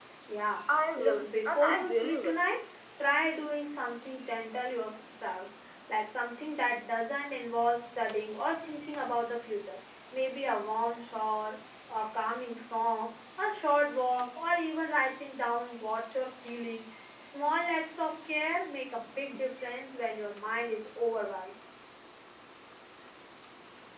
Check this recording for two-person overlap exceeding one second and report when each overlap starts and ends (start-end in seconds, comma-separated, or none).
1.0-2.4